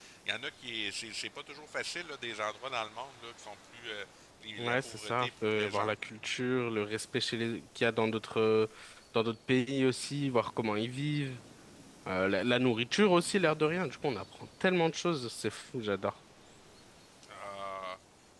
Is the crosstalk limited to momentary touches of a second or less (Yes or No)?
No